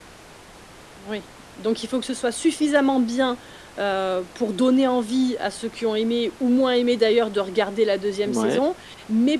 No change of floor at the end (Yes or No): Yes